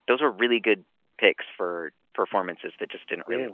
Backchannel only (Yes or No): Yes